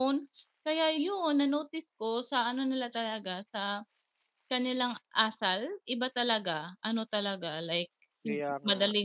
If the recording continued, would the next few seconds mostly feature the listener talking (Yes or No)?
No